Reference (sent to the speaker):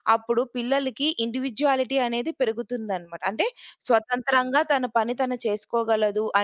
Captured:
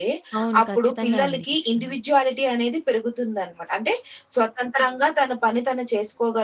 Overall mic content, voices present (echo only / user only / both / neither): both